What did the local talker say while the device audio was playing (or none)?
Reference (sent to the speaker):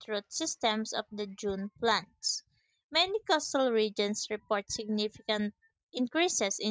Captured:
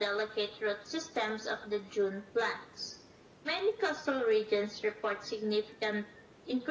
none